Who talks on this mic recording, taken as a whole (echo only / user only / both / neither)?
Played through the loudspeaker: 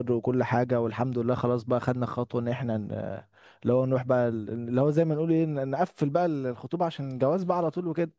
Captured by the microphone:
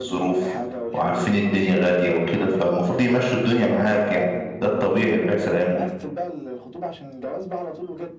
both